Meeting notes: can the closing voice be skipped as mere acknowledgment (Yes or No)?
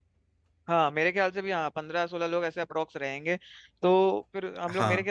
Yes